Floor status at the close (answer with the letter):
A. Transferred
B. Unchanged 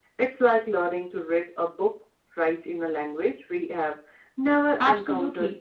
A